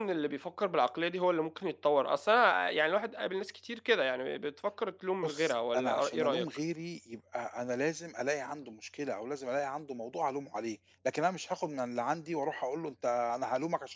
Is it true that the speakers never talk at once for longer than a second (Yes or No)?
No